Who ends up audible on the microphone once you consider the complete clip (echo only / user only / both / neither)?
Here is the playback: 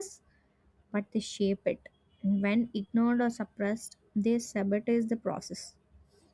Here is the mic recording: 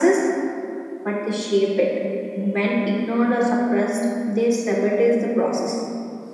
echo only